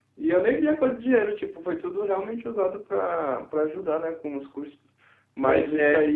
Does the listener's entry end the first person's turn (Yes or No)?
No